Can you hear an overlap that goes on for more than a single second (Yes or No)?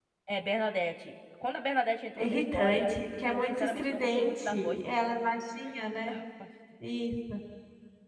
Yes